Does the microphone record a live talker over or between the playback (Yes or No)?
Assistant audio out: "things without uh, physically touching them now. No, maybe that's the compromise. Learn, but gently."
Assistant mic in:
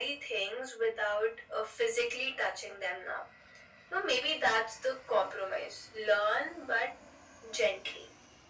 No